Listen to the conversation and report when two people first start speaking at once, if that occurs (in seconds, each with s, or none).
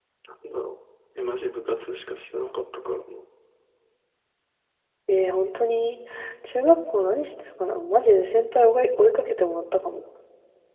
none